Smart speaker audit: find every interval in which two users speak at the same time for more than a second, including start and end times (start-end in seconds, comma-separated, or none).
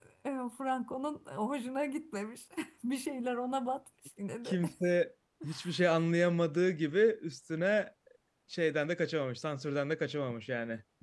none